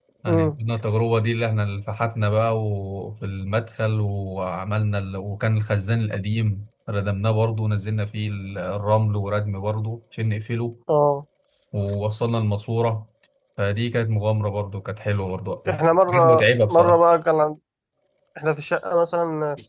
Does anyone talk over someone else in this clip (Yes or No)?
Yes